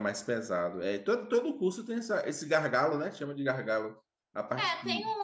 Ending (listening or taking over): taking over